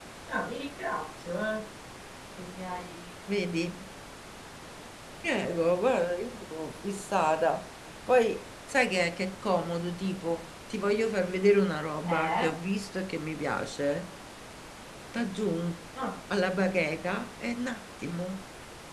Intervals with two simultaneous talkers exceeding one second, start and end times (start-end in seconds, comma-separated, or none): none